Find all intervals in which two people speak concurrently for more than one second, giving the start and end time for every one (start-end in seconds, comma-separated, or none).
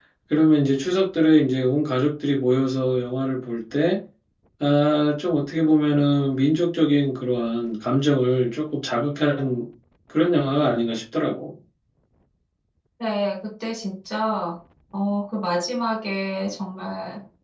none